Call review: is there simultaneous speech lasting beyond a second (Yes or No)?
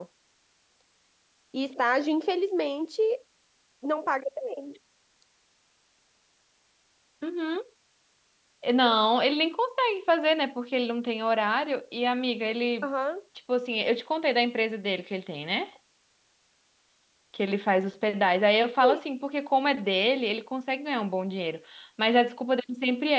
No